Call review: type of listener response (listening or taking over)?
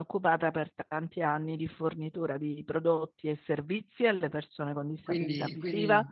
taking over